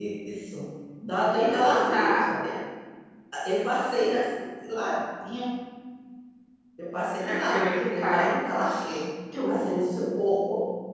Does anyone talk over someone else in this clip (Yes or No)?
Yes